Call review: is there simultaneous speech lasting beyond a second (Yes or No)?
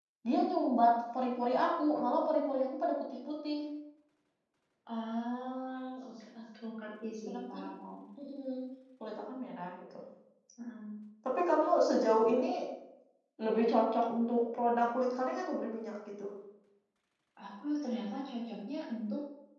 No